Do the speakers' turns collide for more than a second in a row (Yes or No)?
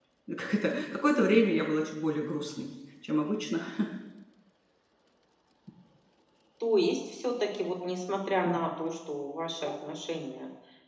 No